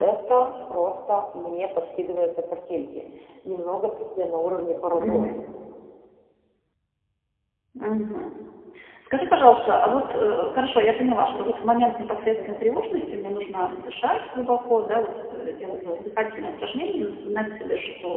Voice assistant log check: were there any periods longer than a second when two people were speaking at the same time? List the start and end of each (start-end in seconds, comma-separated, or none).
none